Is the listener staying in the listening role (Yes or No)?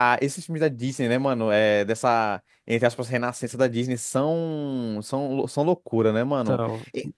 Yes